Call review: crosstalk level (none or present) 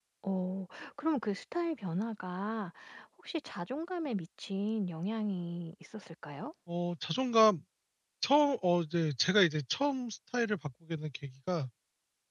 none